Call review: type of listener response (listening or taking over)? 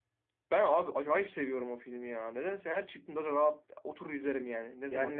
taking over